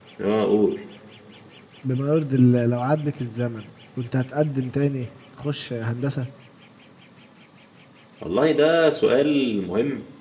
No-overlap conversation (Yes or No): Yes